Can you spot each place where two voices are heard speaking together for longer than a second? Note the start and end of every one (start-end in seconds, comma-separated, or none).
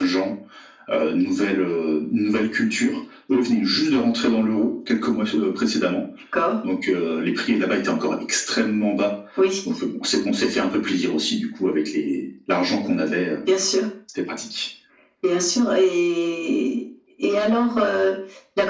none